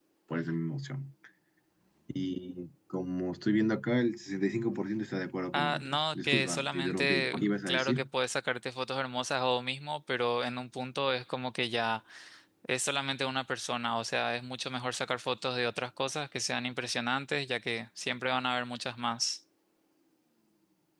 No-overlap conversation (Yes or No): No